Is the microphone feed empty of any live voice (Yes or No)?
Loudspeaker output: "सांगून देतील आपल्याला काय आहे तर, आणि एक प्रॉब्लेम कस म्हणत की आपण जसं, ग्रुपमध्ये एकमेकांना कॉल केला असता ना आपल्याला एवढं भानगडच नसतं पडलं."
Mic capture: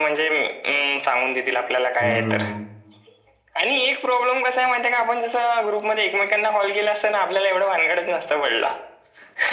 No